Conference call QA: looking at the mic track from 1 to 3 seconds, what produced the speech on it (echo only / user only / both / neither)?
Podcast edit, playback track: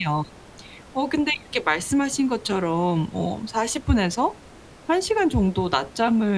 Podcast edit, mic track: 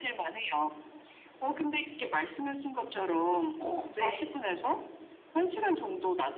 echo only